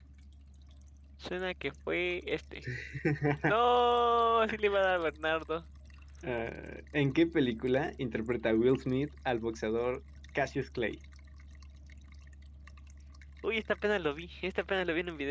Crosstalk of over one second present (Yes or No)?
No